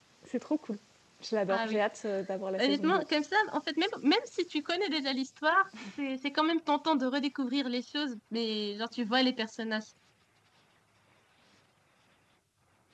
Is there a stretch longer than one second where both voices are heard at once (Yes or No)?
No